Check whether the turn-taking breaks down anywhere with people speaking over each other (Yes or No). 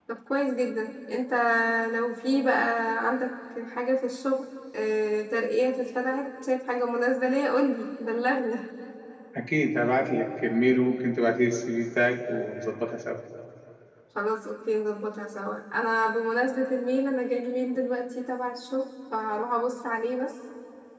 No